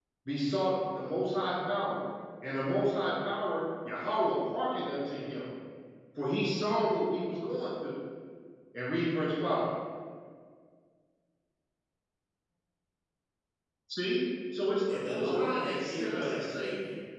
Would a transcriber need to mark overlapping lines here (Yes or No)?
Yes